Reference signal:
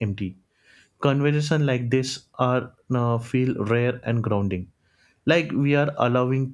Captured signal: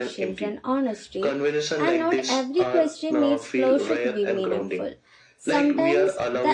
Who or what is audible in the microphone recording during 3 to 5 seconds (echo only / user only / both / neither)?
both